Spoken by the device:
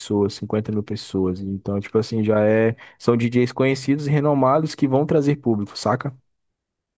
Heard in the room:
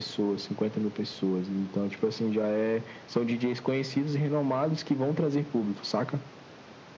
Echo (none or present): present